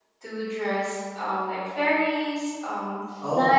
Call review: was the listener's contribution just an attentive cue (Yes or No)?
Yes